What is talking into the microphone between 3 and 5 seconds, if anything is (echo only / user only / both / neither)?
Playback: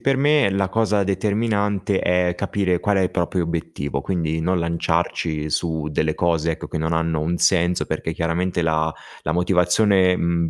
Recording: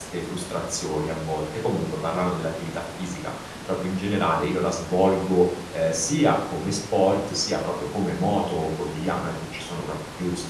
user only